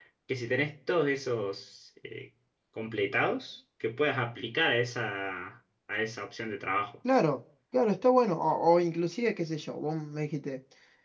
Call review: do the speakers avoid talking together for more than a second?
Yes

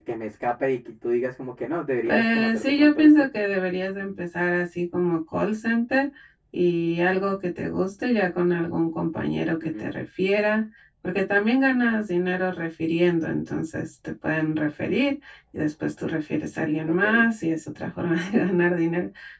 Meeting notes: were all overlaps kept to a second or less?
No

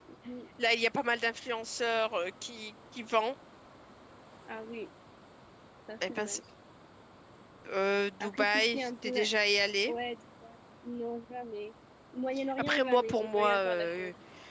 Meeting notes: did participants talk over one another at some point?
Yes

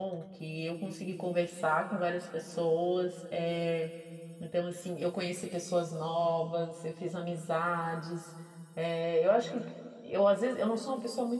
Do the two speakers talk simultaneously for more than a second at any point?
No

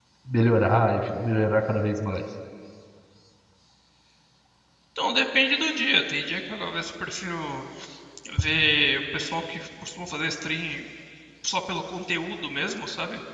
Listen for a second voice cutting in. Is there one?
No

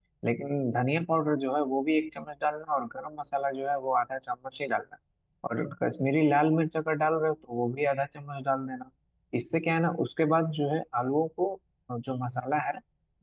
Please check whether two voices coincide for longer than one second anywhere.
No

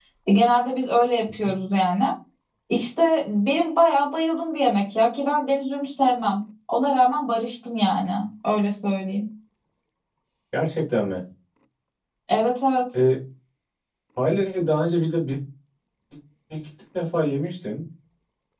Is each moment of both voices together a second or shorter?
Yes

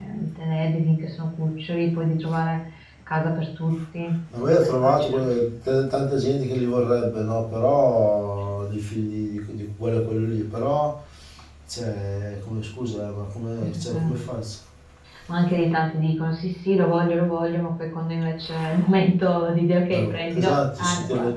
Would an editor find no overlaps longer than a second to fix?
No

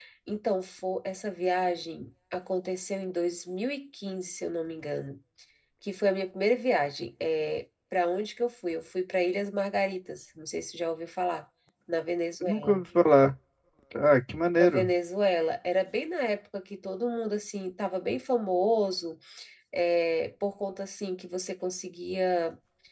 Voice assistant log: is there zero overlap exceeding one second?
Yes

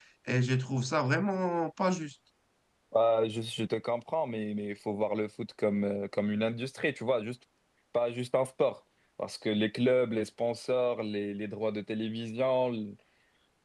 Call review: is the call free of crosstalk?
Yes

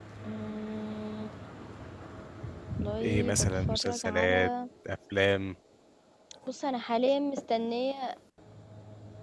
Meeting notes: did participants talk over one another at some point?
Yes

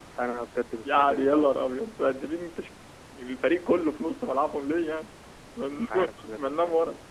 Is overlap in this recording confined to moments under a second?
No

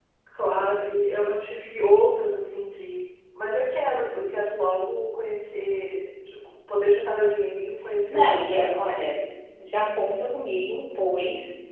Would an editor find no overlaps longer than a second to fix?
No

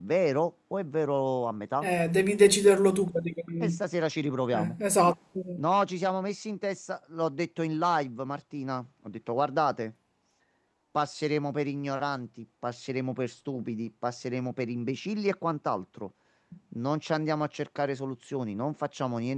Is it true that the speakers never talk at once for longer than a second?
Yes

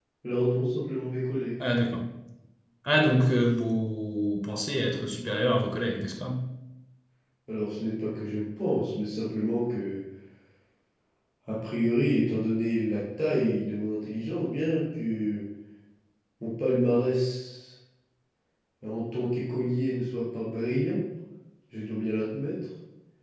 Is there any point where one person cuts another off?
No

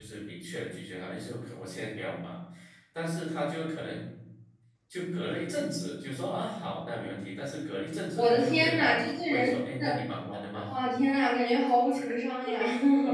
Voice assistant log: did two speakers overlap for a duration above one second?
Yes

